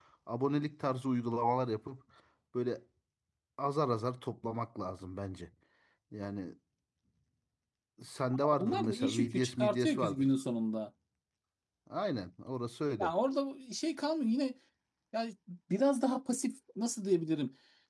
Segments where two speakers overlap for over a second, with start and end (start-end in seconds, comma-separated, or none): 8.6-10.3